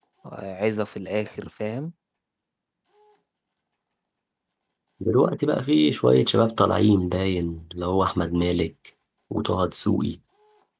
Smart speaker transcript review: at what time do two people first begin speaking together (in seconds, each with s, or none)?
none